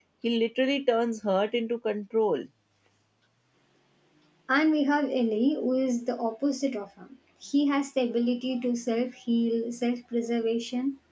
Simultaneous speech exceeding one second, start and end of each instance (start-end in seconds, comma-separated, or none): none